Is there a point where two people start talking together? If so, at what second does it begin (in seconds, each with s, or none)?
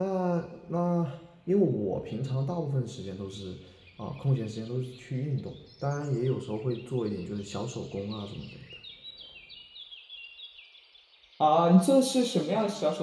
none